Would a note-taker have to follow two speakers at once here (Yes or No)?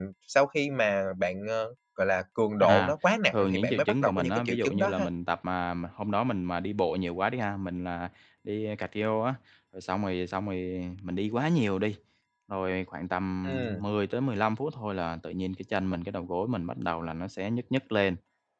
Yes